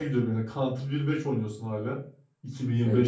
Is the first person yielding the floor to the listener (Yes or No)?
No